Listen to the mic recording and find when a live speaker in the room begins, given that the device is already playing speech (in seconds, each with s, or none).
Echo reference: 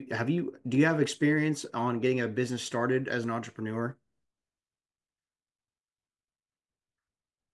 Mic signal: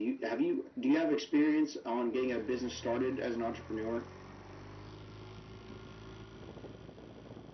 none